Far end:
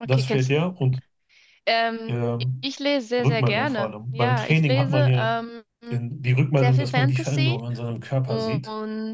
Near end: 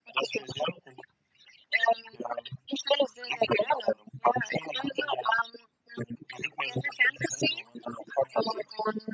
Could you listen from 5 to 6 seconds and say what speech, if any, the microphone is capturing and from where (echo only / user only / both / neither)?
echo only